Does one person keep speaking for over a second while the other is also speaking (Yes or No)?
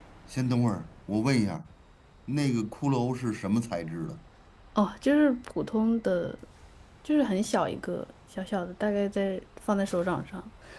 No